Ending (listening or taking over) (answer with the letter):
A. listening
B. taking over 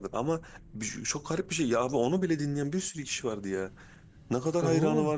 A